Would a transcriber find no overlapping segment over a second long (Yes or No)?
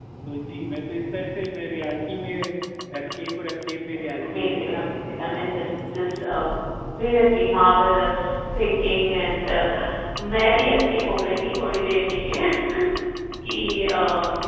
No